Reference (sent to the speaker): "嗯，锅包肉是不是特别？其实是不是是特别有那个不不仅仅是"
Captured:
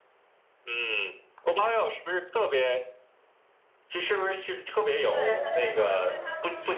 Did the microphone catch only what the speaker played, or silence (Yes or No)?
No